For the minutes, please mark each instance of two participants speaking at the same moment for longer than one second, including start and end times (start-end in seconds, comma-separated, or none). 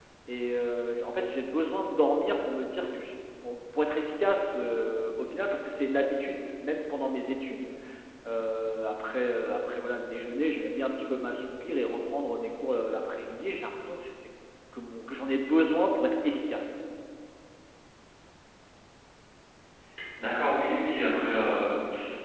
none